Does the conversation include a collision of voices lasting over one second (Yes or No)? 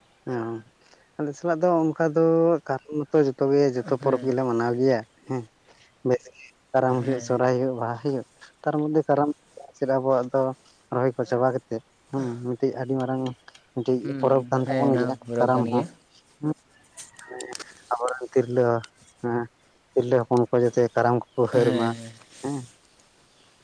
Yes